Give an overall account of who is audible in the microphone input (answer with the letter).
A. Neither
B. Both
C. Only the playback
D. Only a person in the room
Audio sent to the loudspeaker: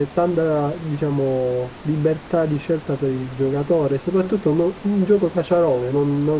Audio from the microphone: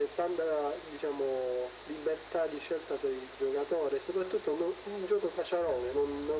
C